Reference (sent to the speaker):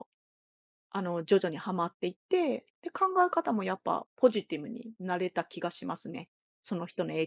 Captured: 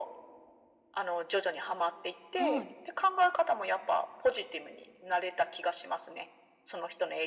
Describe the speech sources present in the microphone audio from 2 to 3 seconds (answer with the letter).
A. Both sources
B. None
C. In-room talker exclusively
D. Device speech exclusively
A